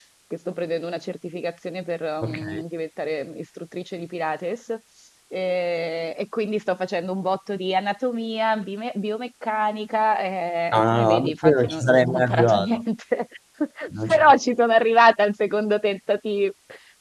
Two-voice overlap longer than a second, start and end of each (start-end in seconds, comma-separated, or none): 10.7-12.8